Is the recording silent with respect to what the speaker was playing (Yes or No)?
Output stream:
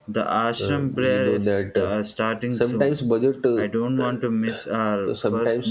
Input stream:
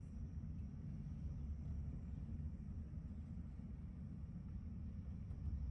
Yes